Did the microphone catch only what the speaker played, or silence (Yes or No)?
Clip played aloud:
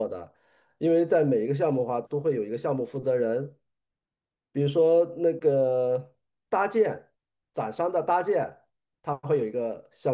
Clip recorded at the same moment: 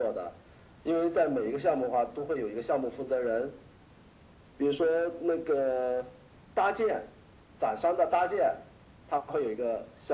Yes